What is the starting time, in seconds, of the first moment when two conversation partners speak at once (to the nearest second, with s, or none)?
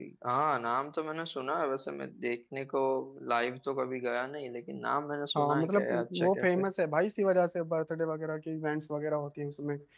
5 s